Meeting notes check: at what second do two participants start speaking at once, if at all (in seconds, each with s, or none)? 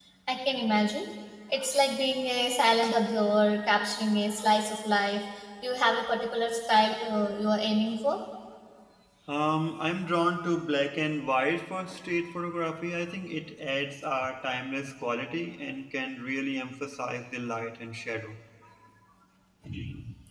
none